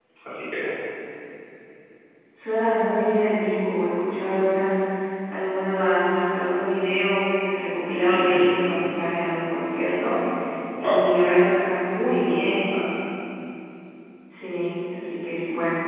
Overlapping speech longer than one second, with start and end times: none

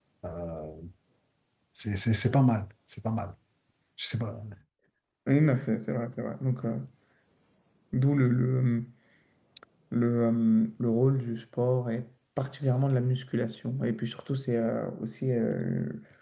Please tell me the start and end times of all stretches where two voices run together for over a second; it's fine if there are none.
none

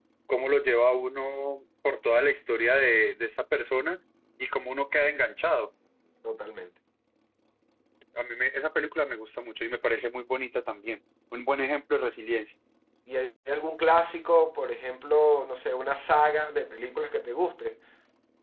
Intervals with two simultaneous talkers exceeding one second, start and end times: none

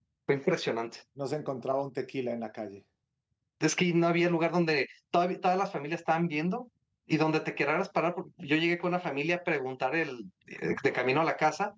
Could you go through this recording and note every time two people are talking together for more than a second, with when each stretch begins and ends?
none

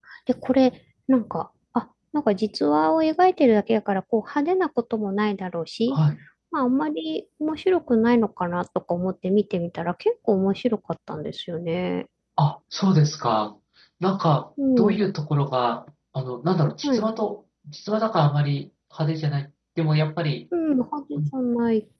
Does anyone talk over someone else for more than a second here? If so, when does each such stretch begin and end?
none

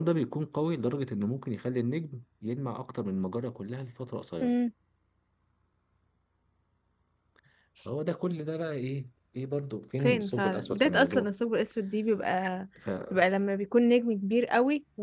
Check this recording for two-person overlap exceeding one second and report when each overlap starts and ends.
10.0-11.3

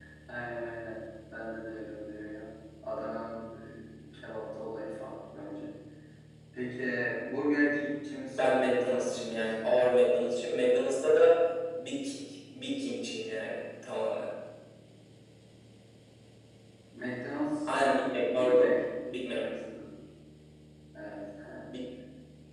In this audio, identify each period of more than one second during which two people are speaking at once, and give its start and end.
8.3-9.6

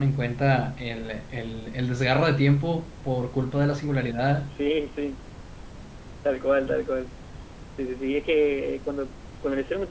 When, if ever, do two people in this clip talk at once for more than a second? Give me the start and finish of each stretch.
none

